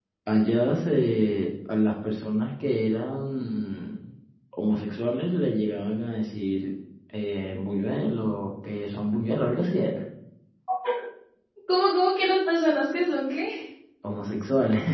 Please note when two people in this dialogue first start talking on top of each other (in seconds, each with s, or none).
none